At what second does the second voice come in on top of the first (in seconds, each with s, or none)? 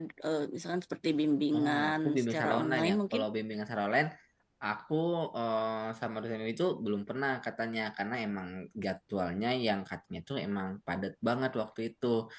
1.5 s